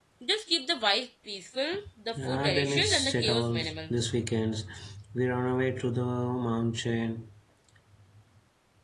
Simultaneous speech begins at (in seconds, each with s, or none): 2.1 s